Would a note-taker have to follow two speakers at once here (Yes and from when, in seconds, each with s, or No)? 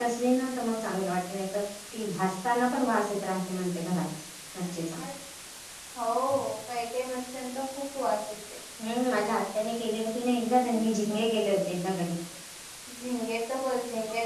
No